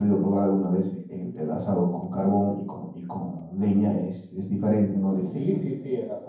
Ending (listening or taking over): taking over